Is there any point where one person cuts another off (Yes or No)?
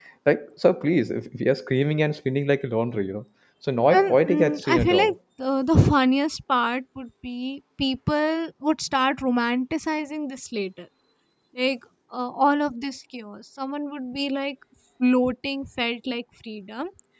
Yes